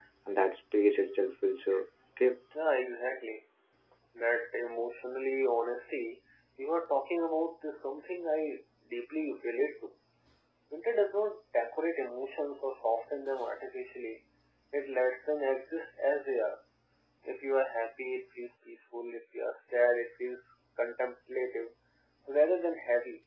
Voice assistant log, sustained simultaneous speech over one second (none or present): none